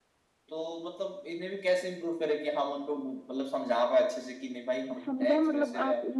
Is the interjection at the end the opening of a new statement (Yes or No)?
Yes